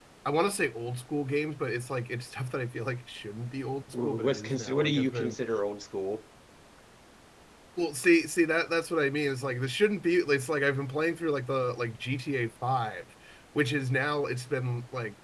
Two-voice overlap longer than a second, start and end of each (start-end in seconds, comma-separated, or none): 3.9-5.4